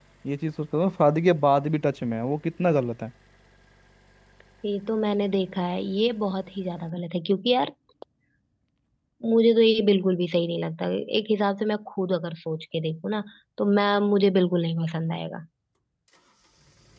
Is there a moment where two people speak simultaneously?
No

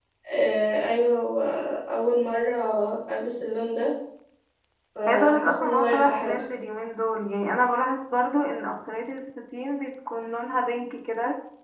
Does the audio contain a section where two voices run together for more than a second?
Yes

